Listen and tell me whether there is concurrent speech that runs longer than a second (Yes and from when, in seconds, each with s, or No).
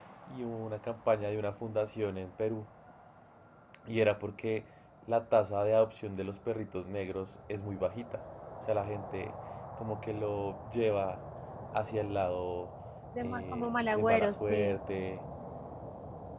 Yes, from 13.2 s